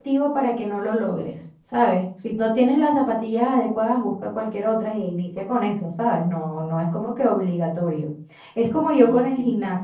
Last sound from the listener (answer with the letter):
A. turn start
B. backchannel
B